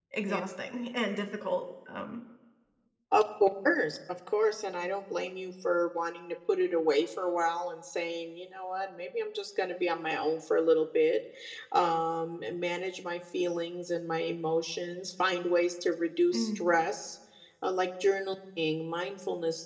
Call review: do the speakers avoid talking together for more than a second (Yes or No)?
Yes